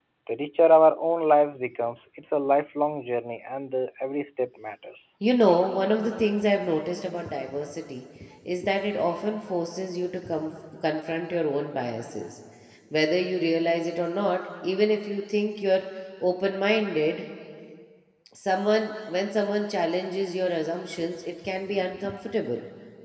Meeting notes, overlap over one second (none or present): none